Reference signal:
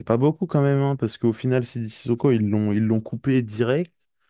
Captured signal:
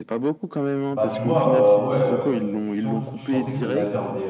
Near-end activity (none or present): present